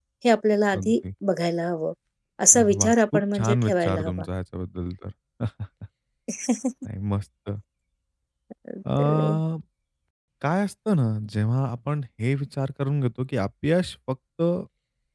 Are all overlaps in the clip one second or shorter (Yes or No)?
No